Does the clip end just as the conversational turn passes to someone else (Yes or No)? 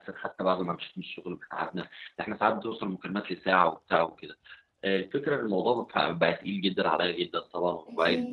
No